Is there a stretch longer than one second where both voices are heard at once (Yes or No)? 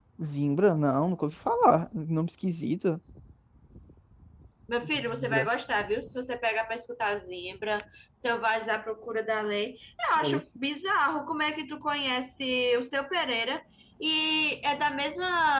No